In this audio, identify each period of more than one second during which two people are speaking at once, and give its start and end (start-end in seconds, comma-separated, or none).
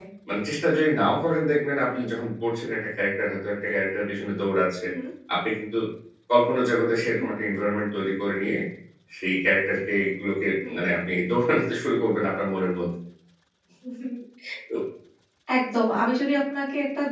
none